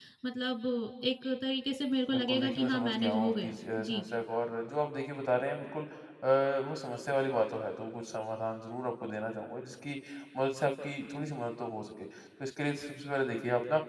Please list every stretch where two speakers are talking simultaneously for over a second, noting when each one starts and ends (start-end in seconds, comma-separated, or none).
2.1-4.0